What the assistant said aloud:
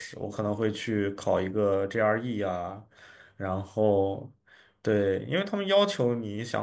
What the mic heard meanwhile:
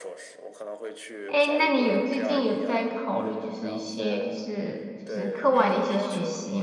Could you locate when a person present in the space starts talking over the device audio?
1.3 s

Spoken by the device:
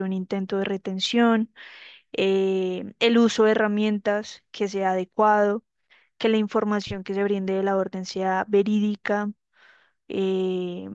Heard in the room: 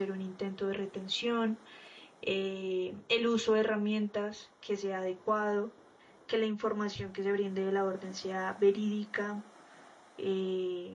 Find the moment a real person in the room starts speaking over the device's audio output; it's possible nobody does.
none

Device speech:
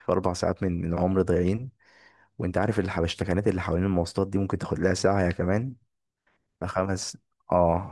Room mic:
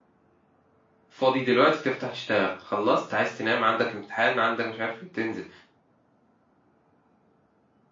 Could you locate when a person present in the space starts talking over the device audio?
1.1 s

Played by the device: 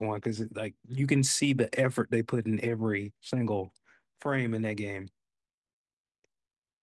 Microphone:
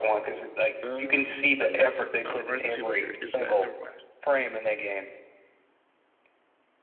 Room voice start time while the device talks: 0.8 s

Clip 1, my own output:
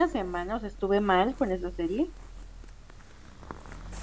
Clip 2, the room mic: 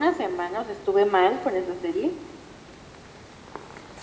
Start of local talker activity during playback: none

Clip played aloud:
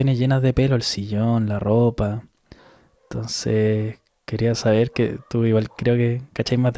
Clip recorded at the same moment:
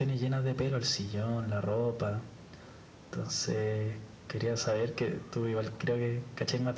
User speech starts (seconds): none

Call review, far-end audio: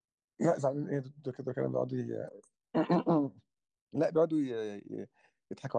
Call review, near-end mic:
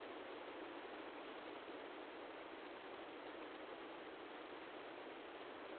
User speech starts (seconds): none

